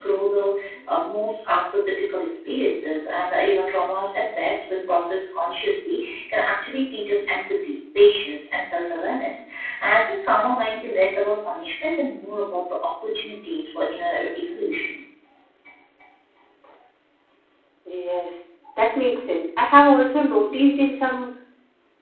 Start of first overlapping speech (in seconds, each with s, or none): none